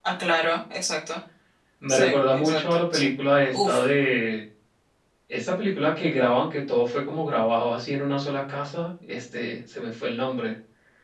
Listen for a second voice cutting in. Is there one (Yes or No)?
Yes